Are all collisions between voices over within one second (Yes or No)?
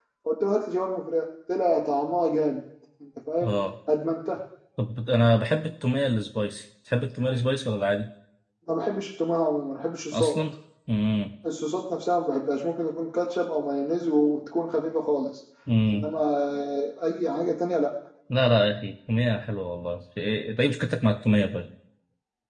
Yes